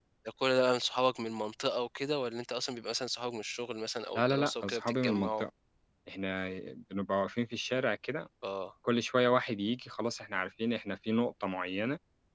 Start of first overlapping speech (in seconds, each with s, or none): 4.2 s